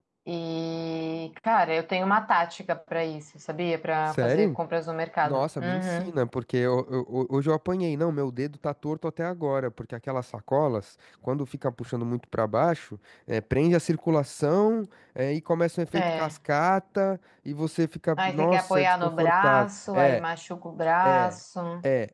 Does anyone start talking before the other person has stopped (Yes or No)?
Yes